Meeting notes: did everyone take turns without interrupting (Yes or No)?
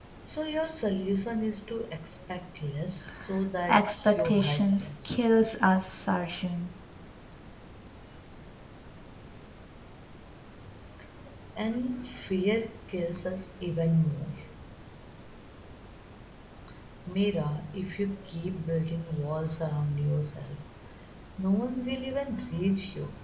No